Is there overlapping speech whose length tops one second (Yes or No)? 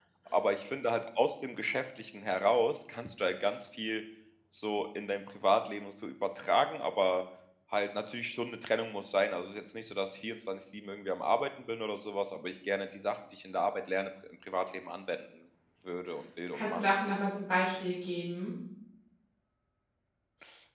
No